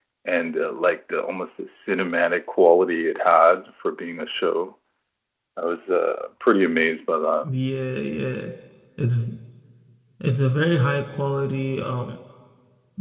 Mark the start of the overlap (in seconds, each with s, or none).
none